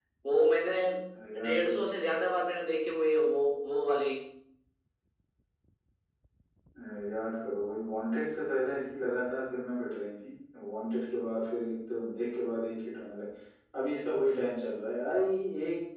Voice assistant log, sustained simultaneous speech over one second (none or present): none